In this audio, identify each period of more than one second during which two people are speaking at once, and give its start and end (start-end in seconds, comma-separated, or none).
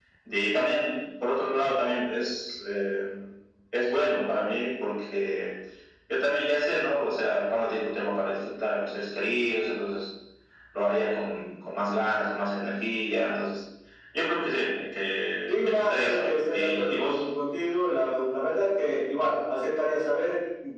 15.5-17.2